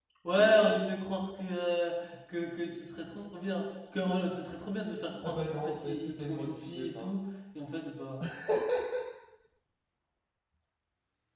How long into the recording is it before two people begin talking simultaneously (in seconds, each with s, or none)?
5.2 s